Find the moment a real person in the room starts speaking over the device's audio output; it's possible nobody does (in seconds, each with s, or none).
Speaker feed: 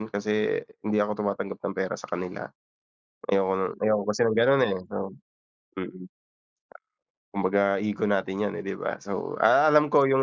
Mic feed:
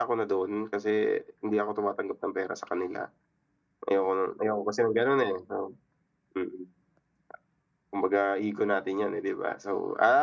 none